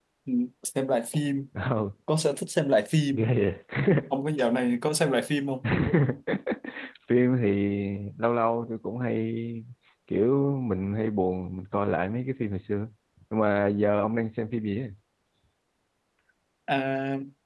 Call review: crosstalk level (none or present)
none